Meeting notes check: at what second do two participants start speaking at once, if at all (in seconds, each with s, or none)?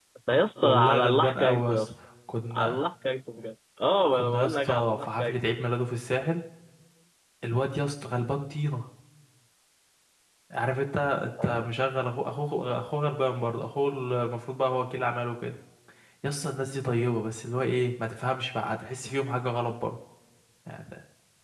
0.6 s